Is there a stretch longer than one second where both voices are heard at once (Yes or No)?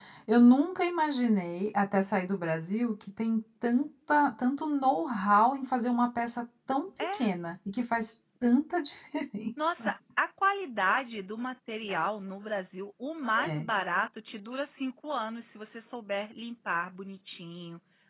No